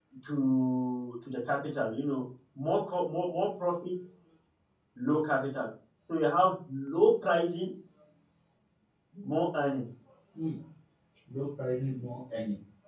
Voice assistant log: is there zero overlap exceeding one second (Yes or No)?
Yes